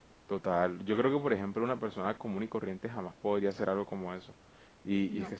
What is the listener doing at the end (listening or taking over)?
listening